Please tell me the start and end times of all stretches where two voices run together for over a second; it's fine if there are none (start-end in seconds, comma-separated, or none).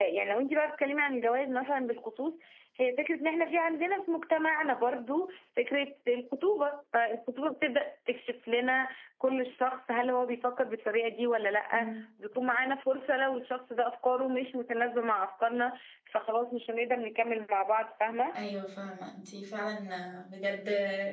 none